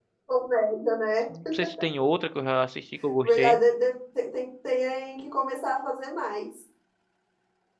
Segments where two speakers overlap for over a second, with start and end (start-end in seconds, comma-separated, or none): none